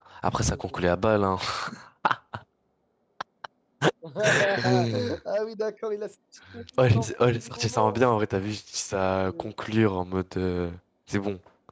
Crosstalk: present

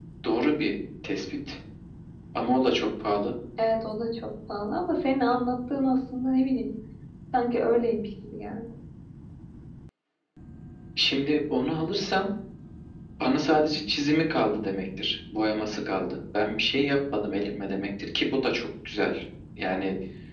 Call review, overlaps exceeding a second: none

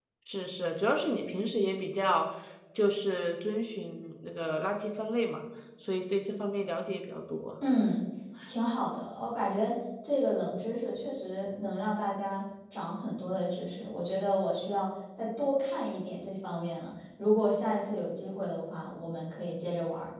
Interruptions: none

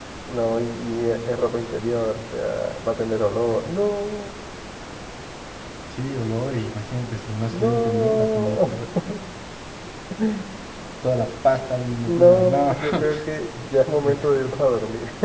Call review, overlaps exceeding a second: present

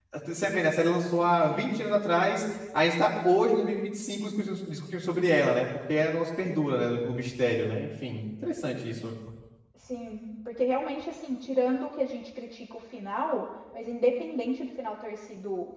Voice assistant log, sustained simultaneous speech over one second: none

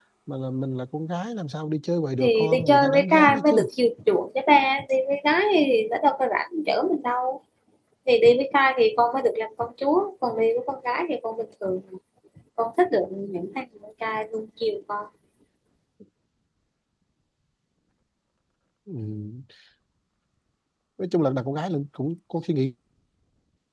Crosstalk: present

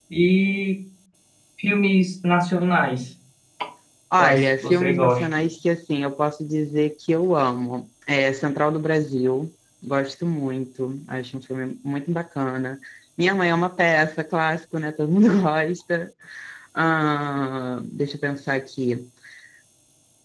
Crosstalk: present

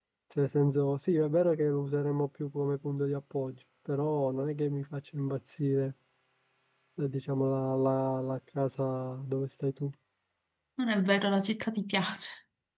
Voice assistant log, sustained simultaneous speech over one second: none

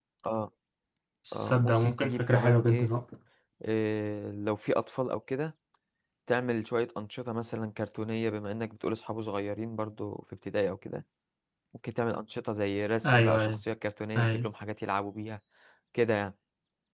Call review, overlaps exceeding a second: present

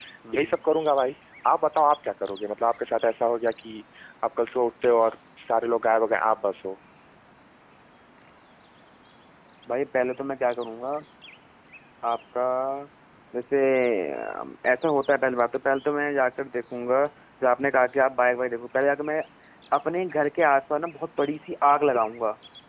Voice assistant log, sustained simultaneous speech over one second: none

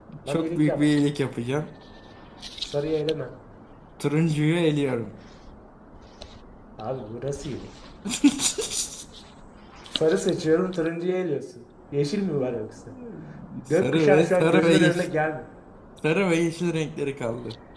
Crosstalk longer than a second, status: present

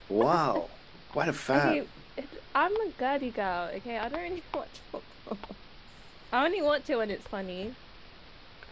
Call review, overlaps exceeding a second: none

